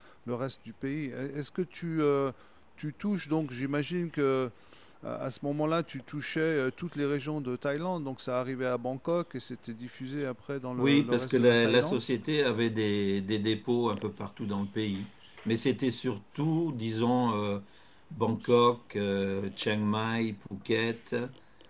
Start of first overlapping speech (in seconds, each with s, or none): 10.8 s